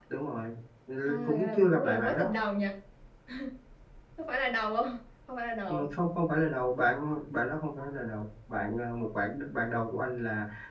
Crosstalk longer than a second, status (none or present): present